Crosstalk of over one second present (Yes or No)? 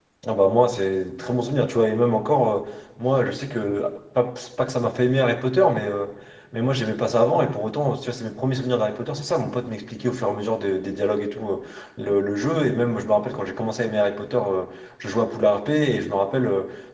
No